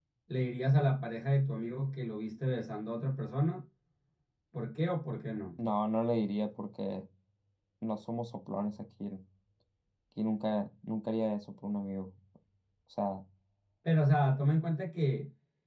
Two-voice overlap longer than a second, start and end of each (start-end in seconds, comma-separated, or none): none